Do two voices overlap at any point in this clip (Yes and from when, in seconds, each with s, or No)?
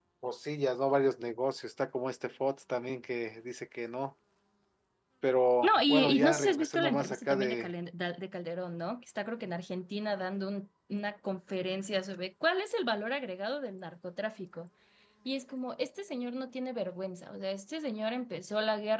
Yes, from 5.6 s